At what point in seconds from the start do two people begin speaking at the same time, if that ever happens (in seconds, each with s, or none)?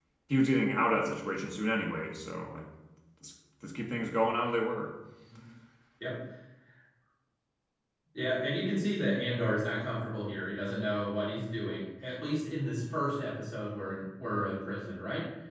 none